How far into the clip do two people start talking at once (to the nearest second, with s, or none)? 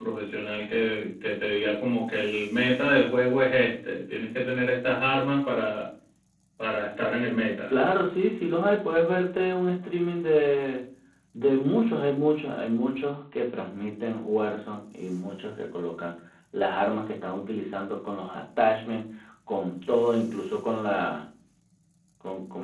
none